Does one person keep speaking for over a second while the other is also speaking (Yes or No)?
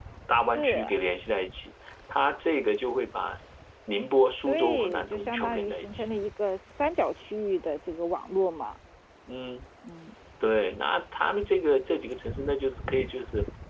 Yes